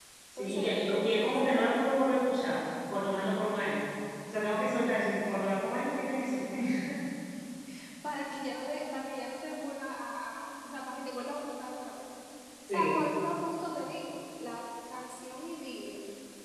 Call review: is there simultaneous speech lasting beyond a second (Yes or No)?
Yes